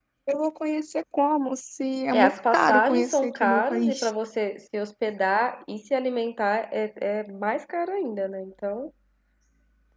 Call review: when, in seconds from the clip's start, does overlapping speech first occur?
2.1 s

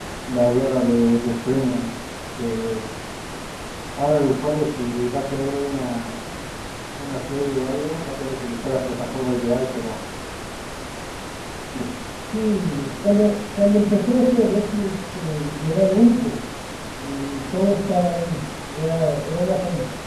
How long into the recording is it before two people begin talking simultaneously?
none

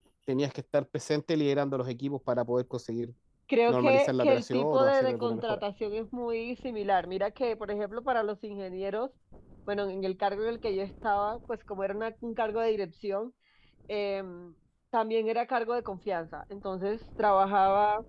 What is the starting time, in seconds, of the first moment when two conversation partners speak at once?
3.7 s

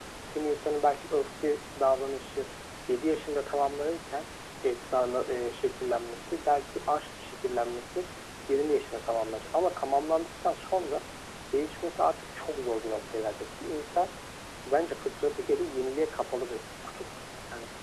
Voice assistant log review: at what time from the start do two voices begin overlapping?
none

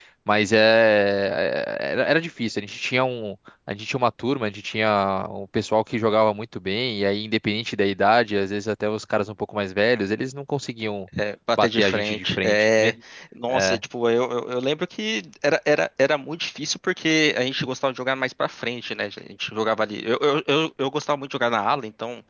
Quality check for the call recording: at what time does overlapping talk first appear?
11.6 s

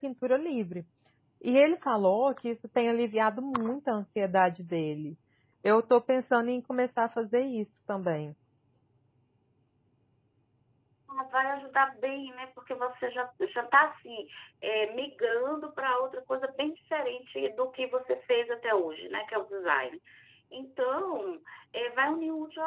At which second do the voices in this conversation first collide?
none

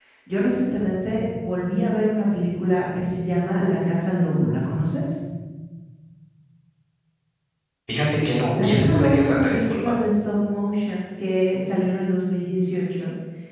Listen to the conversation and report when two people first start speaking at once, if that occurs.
8.6 s

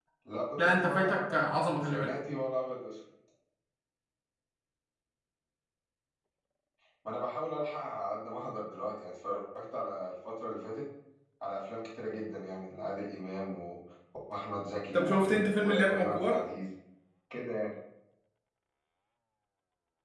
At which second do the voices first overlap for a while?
0.6 s

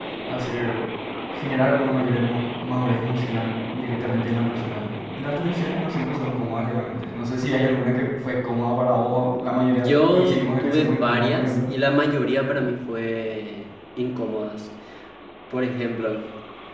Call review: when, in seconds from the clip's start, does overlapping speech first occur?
9.7 s

